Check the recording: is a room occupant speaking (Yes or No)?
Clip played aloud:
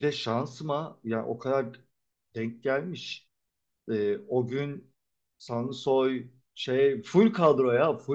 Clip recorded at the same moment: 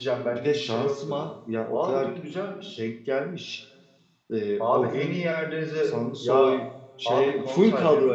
Yes